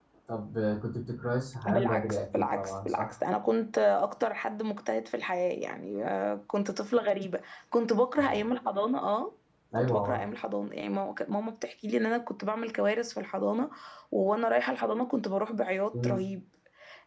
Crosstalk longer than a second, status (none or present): present